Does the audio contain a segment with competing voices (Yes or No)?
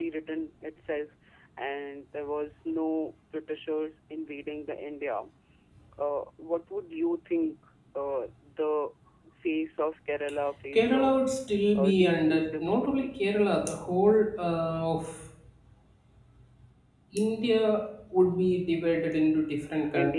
Yes